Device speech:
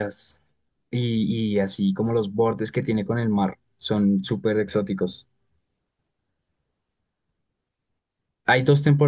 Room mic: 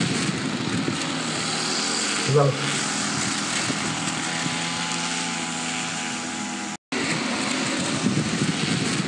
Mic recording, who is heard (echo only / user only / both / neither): user only